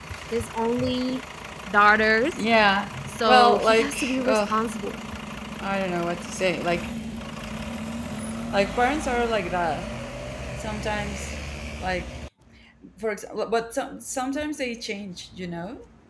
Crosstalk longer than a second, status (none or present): present